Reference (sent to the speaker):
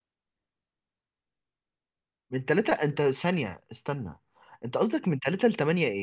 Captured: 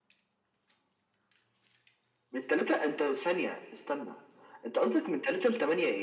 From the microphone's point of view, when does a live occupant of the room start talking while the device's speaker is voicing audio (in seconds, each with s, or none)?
none